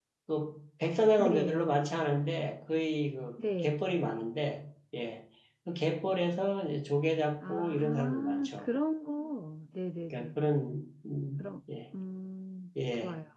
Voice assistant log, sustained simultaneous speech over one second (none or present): present